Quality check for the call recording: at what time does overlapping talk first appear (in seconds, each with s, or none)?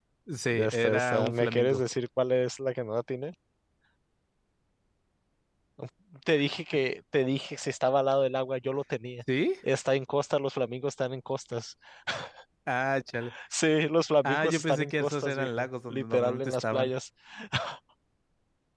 0.5 s